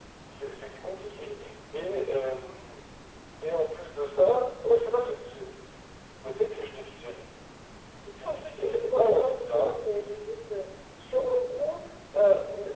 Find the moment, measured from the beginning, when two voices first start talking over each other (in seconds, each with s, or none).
8.2 s